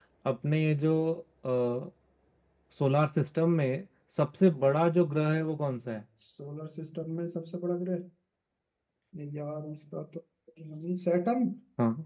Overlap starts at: none

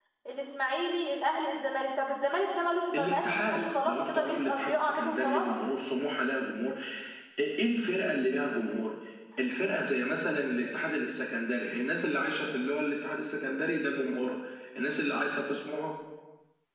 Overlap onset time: 2.9 s

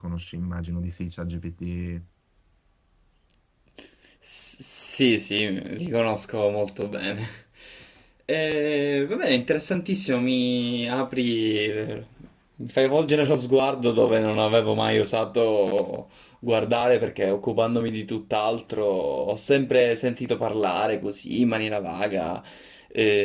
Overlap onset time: none

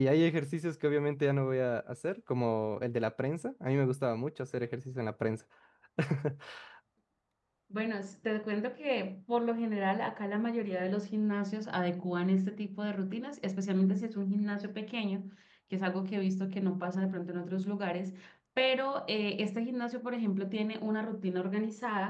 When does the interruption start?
none

